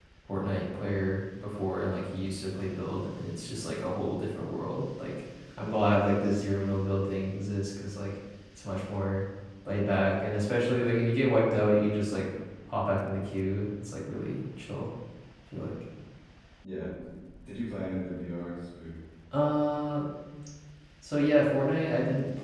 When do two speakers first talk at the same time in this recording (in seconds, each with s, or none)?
none